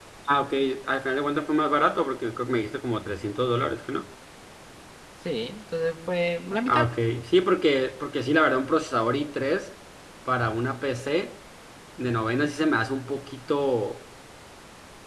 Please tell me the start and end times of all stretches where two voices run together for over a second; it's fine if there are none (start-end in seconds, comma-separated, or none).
none